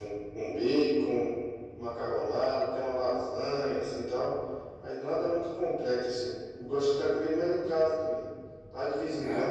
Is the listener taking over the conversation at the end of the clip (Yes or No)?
No